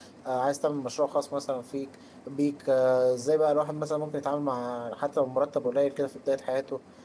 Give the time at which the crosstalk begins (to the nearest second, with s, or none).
none